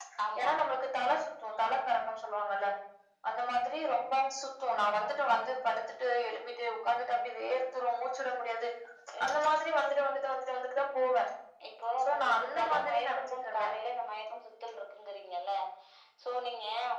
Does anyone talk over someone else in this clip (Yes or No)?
Yes